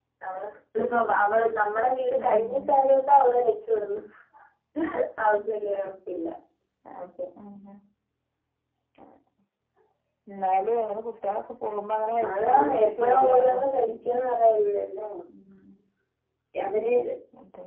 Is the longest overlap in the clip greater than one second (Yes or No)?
Yes